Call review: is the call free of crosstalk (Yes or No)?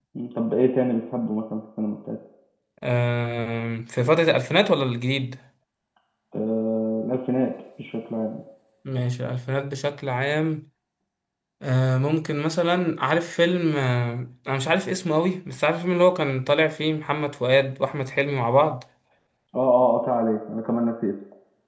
Yes